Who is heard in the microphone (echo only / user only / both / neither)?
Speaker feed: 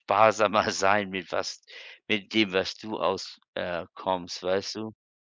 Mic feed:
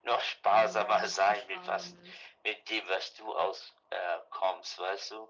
both